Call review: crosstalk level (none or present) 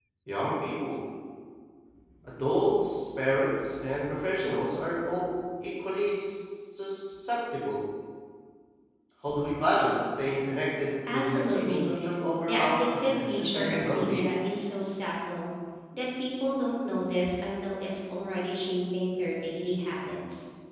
present